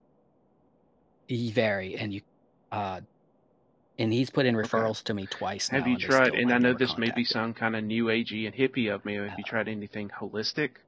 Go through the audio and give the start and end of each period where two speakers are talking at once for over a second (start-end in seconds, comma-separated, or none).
5.7-7.2